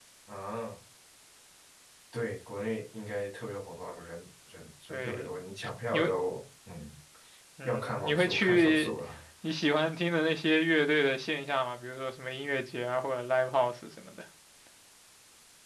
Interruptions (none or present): present